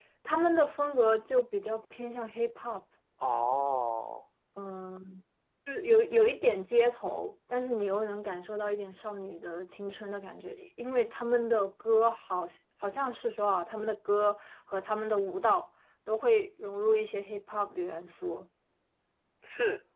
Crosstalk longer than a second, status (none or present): none